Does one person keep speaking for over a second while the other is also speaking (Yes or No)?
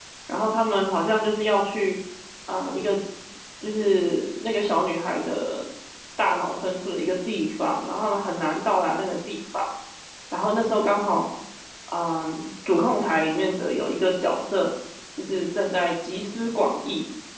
No